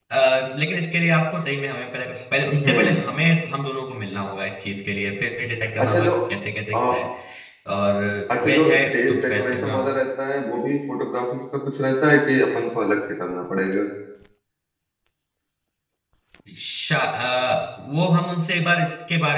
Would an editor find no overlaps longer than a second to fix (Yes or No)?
No